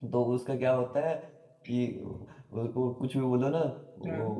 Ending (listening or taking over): listening